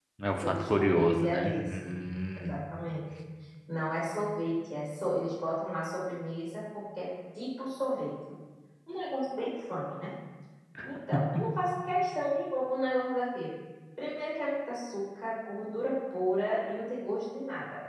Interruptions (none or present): present